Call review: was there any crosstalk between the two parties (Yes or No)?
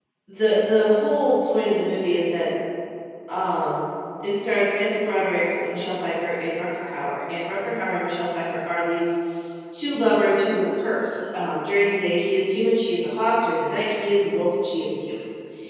No